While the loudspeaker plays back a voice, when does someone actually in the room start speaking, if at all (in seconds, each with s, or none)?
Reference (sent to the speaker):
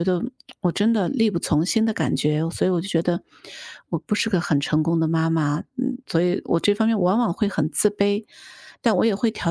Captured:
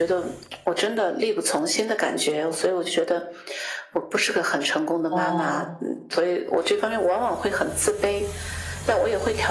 5.1 s